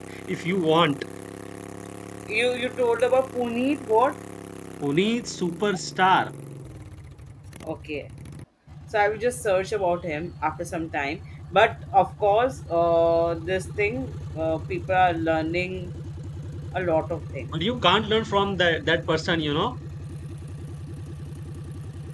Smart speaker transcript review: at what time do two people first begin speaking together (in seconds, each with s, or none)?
none